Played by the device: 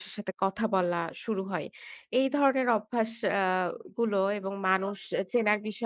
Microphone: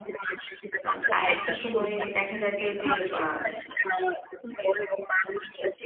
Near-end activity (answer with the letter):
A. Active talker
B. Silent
A